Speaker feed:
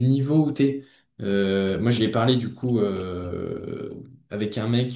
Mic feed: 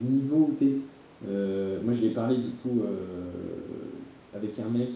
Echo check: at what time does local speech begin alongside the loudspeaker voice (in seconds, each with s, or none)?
none